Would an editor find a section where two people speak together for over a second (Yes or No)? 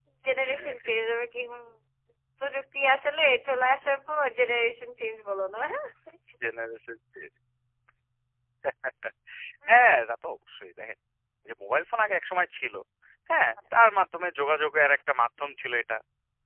No